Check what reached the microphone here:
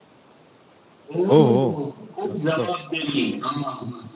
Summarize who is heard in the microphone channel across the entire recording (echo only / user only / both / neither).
both